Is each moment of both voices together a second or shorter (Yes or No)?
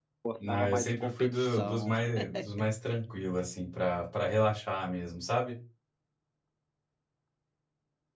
No